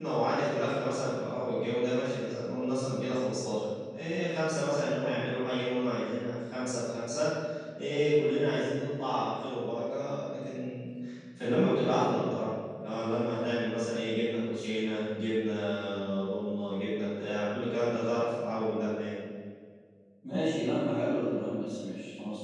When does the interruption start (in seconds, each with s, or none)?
none